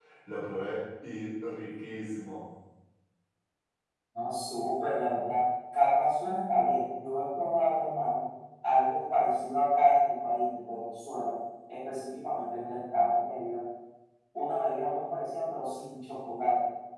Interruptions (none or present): none